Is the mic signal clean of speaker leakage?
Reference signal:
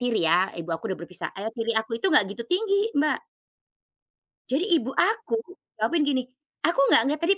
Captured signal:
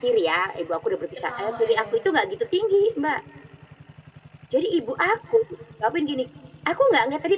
No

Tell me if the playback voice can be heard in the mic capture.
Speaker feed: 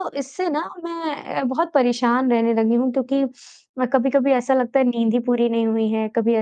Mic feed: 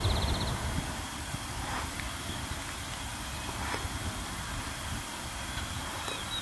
No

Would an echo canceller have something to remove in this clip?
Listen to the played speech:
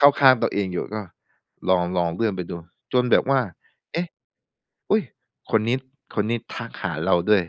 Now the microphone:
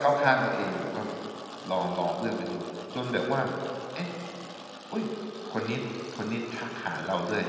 Yes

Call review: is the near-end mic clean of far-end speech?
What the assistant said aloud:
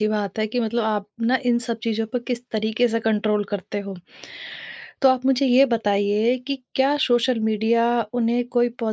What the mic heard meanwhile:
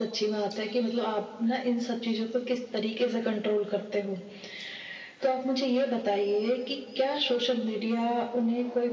No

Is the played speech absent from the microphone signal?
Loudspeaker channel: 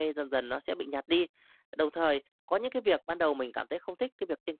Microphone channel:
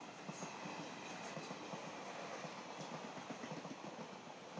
Yes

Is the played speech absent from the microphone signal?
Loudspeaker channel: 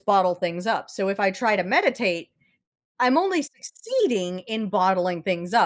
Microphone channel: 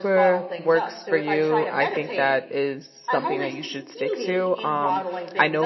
No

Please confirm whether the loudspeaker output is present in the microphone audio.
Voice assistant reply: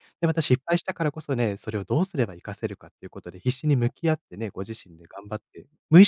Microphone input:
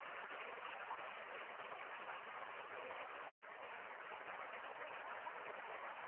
No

